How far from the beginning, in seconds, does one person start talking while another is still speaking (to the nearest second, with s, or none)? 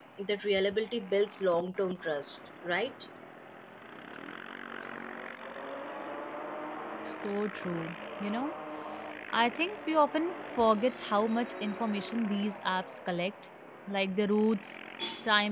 none